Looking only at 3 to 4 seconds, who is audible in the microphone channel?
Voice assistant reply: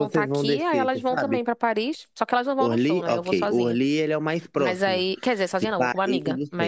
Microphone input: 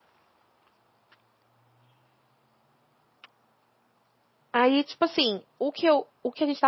neither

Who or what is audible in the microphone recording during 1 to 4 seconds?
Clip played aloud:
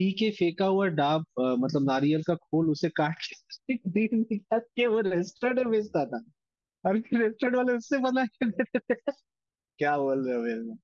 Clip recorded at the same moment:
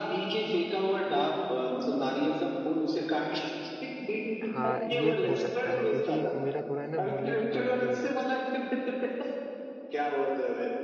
echo only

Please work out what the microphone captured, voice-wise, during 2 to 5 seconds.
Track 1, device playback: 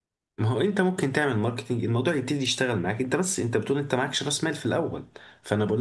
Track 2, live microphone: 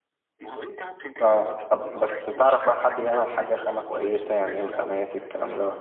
both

